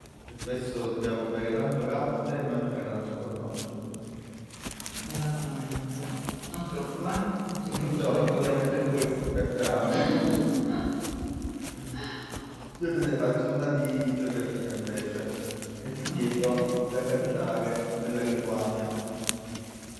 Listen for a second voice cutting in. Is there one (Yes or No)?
Yes